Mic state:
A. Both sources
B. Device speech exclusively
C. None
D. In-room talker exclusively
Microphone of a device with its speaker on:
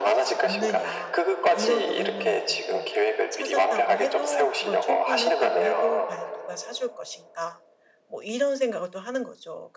A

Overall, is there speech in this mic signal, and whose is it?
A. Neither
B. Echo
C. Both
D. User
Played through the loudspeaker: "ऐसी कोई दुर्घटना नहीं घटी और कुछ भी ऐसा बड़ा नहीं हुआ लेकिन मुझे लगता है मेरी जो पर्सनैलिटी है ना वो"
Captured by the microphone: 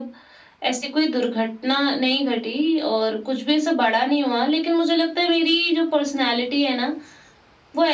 B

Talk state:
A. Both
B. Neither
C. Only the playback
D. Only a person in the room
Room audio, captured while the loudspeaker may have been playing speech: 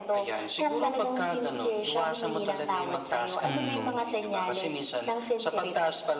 A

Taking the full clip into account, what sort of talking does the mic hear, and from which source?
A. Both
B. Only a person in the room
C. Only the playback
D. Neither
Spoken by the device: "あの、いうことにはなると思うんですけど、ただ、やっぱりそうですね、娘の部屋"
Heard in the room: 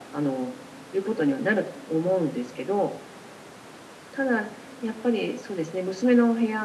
C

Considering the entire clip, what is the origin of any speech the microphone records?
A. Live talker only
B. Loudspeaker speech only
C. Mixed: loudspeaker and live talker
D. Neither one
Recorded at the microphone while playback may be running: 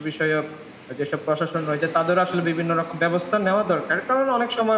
A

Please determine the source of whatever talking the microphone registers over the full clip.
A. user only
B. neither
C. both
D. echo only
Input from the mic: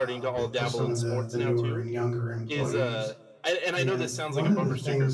C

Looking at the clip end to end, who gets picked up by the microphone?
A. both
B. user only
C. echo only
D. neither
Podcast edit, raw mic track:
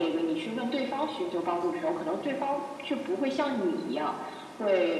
C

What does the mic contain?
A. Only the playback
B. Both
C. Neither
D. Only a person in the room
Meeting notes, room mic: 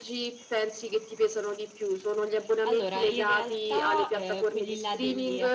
B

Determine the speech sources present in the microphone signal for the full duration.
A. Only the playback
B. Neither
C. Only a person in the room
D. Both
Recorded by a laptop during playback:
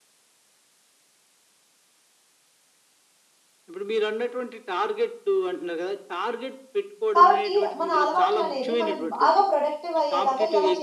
D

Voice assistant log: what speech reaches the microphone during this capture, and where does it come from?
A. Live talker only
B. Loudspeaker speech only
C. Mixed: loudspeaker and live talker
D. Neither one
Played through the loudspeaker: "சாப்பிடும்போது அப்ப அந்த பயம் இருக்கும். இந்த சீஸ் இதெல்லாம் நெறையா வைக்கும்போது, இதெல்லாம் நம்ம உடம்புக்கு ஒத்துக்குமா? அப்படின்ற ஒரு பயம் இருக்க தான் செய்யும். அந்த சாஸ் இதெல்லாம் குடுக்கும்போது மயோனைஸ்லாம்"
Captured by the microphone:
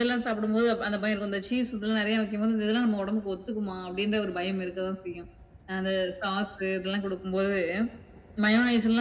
B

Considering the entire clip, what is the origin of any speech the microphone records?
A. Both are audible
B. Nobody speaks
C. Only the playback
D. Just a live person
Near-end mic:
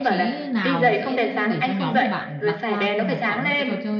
A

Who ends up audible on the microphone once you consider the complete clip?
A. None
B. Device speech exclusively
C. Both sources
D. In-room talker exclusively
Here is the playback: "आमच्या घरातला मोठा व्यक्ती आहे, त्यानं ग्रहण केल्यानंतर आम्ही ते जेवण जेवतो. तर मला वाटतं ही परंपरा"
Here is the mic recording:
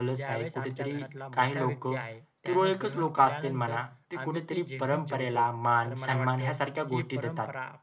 C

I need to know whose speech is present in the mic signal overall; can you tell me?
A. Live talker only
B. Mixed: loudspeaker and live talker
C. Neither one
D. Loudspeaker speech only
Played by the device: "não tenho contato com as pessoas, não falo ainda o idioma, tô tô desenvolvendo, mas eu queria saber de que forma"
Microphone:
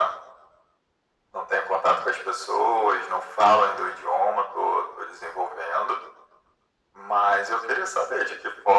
D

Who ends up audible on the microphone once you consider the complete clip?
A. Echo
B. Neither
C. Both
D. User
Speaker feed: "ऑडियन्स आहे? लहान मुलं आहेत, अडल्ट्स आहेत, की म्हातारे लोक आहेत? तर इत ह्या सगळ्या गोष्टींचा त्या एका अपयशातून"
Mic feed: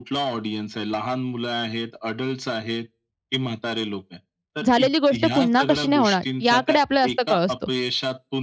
C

